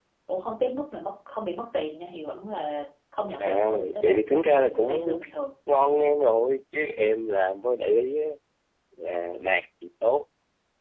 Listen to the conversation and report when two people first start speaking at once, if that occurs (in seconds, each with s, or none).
3.4 s